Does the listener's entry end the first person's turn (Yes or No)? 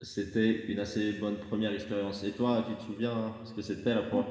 Yes